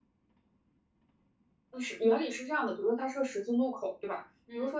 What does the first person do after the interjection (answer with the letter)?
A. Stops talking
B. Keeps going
B